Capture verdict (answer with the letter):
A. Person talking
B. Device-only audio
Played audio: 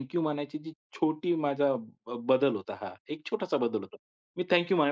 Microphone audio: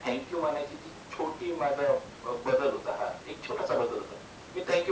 B